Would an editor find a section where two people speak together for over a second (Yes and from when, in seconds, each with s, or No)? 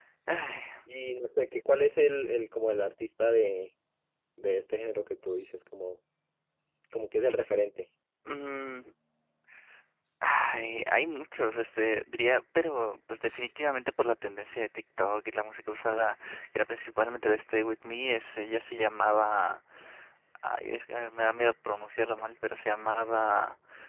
No